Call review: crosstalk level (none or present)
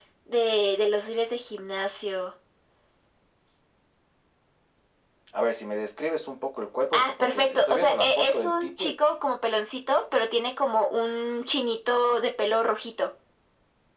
present